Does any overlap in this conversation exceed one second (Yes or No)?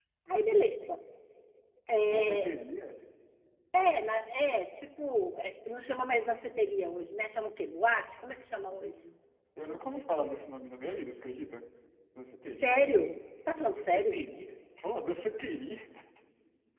No